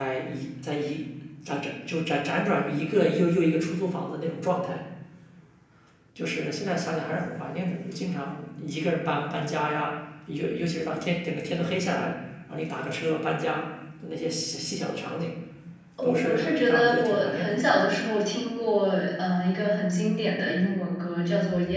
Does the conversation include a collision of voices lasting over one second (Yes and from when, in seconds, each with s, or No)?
Yes, from 16.0 s